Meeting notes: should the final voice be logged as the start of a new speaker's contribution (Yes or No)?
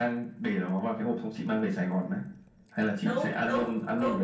Yes